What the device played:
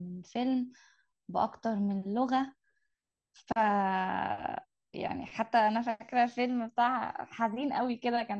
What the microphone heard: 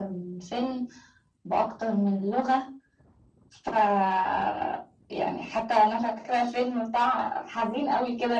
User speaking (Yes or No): No